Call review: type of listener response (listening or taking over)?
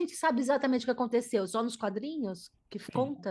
taking over